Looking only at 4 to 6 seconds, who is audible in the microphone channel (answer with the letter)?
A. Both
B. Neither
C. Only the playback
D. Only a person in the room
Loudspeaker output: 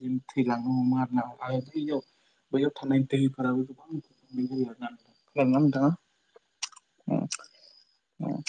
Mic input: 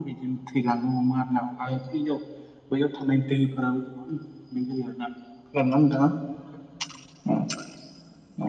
C